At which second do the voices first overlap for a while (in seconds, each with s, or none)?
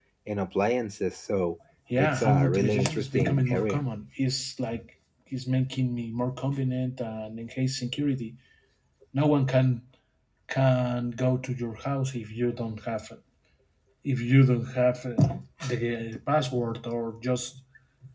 1.9 s